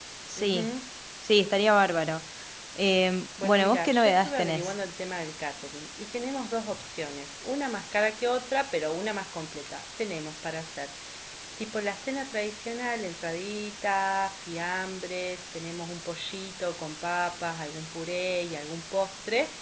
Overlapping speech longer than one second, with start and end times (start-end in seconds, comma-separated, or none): 3.4-4.7